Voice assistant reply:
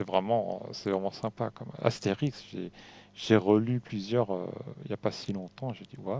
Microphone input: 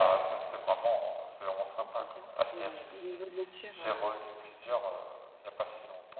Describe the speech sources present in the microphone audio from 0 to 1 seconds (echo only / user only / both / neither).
echo only